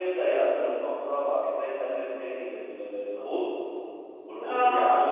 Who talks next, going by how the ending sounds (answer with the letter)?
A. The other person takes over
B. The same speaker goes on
B